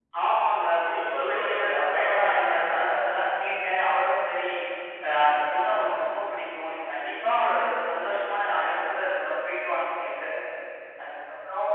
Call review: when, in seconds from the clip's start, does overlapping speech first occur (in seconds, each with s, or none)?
0.7 s